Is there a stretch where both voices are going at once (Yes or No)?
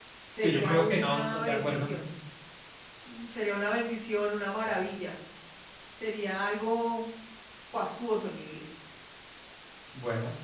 Yes